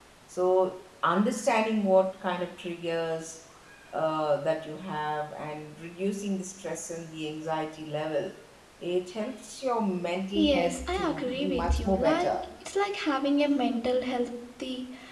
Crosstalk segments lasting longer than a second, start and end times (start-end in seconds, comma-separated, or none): 10.4-12.3